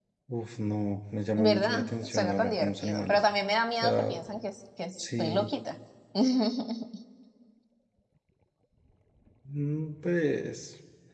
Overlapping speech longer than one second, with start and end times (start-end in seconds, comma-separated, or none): 1.4-3.2